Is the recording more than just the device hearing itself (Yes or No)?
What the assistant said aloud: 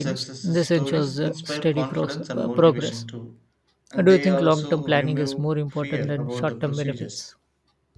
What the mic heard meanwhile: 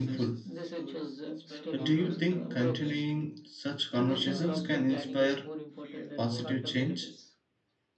Yes